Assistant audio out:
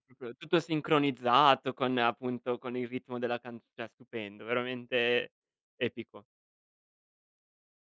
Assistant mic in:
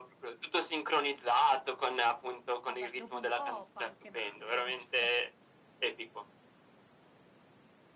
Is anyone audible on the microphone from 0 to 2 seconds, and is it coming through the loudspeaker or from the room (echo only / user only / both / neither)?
echo only